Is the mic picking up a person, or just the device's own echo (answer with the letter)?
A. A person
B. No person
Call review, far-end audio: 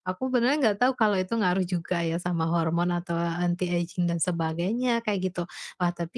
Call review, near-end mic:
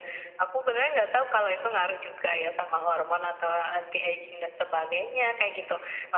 B